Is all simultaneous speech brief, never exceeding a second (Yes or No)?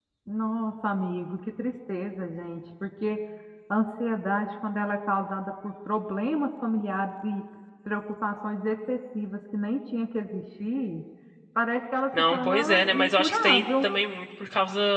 No